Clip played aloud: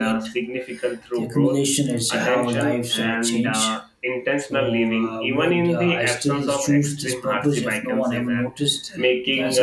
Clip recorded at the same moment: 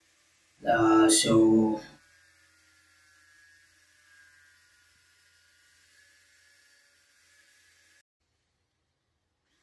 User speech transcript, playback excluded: Uh, so,

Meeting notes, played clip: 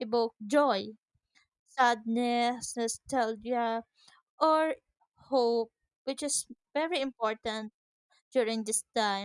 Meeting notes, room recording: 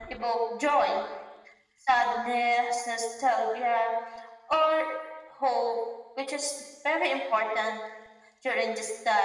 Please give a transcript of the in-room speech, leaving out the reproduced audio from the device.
none

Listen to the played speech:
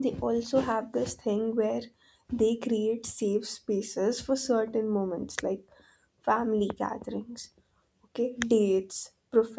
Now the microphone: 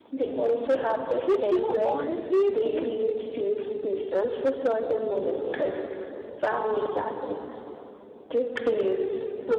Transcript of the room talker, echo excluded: which you know honestly feels

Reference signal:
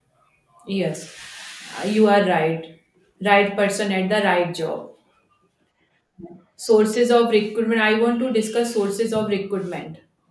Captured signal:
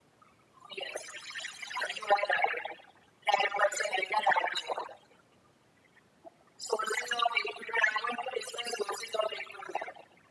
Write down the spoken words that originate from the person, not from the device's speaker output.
none

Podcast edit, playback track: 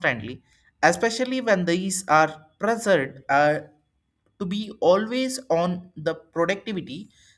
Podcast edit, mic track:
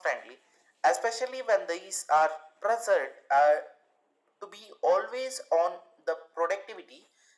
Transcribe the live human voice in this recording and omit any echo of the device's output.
none

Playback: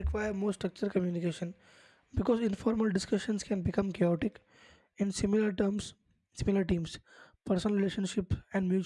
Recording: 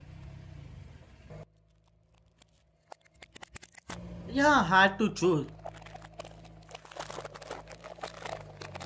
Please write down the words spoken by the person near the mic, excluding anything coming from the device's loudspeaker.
Yeah, had to choose.

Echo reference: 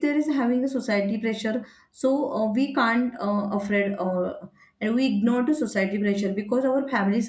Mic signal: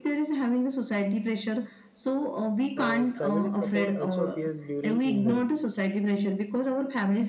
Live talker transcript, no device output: Uh, family support also appears during illness.

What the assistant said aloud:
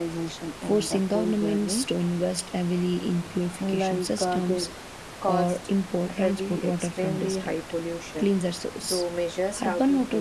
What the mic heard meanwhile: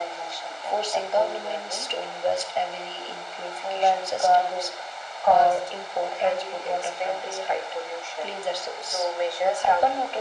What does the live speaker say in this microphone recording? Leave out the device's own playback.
none

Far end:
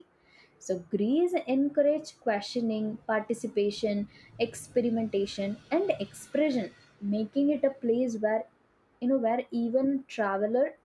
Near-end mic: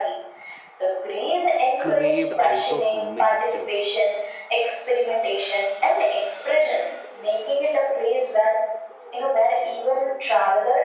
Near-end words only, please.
craved out of myth itself

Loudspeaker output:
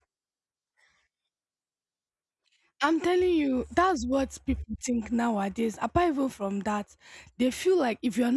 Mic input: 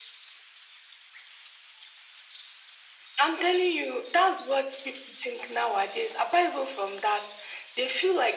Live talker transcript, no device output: none

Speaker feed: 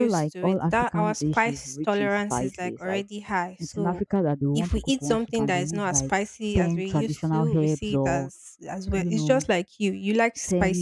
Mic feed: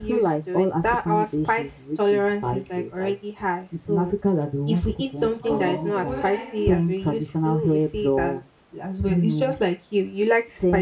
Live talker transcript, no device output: oh okay well I think

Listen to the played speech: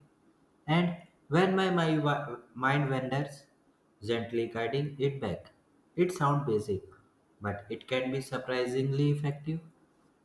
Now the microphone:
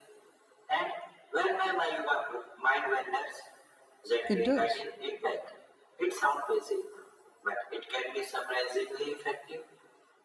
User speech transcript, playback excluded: It does.

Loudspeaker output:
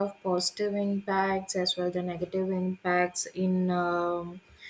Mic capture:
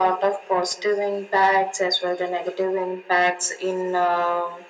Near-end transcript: none

